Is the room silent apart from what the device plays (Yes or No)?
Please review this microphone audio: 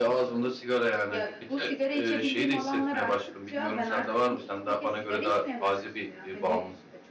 No